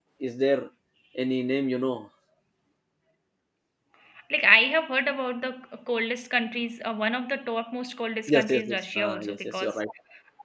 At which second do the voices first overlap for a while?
8.3 s

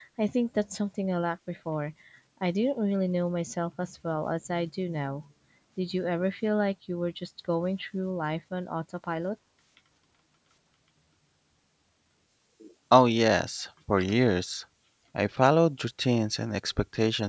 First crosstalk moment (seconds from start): none

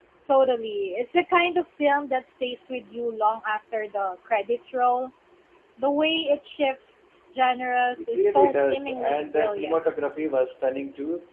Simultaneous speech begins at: 8.0 s

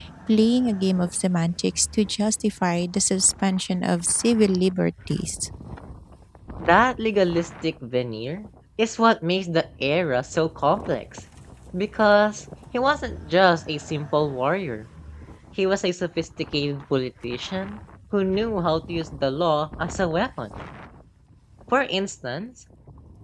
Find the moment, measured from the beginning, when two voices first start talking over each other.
none

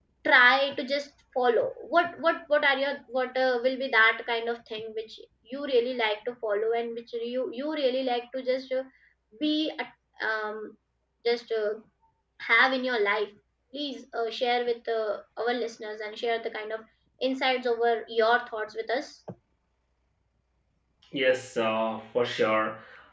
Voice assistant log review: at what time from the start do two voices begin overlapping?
none

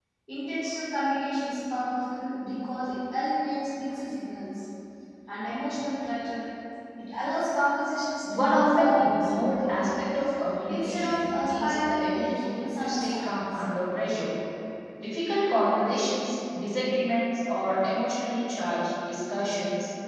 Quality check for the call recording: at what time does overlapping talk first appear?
8.3 s

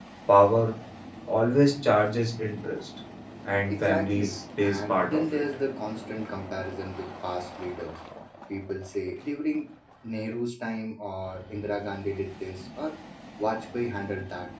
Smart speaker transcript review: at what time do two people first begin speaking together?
3.7 s

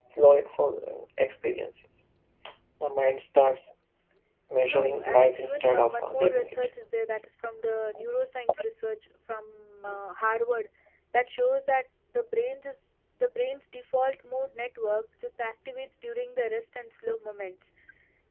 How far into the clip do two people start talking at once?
4.6 s

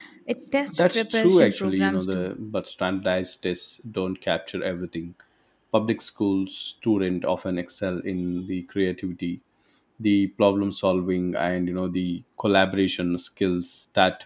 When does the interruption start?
0.7 s

